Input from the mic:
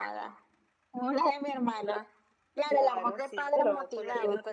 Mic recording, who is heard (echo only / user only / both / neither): echo only